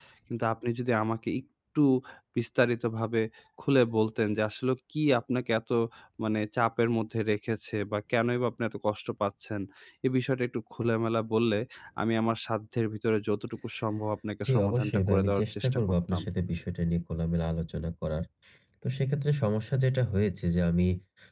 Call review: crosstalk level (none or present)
present